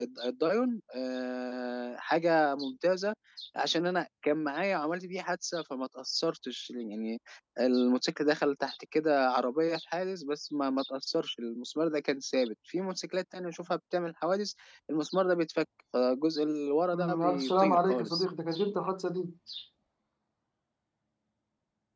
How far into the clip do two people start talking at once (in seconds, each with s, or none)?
16.9 s